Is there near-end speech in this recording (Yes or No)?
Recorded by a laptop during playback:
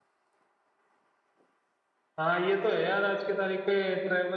Yes